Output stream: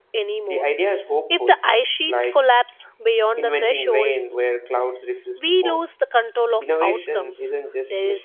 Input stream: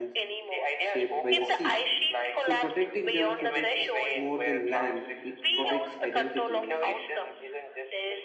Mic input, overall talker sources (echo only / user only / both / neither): both